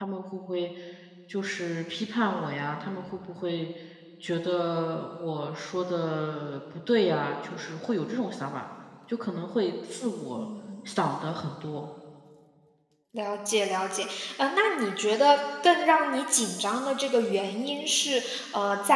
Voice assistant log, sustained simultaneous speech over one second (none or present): none